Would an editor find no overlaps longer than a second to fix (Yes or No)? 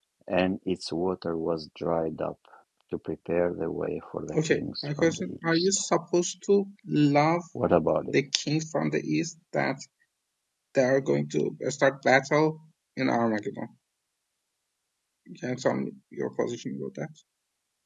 No